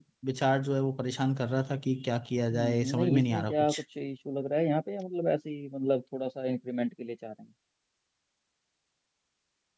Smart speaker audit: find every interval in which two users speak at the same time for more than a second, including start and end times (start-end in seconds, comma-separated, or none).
2.5-3.8